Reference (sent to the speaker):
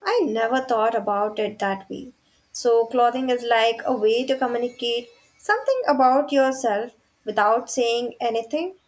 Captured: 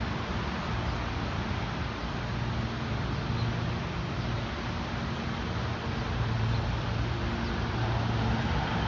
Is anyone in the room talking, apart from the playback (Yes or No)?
No